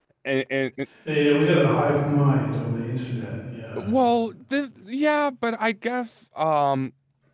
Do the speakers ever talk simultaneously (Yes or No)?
No